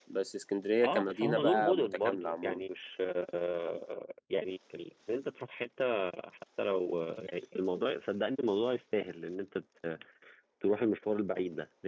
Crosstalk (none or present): present